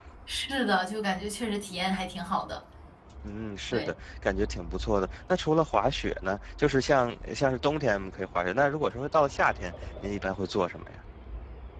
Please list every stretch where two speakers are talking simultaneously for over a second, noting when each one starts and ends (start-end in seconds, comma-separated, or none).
none